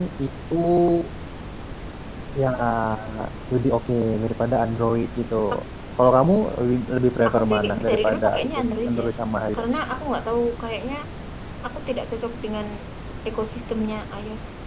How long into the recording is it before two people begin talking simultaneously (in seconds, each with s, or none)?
7.2 s